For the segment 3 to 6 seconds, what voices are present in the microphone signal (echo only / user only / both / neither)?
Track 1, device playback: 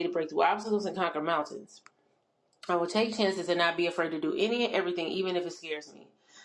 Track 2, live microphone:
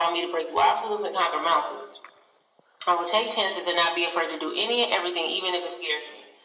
echo only